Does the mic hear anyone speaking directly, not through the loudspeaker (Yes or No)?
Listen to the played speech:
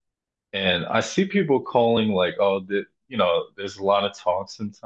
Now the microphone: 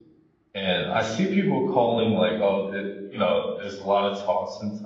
No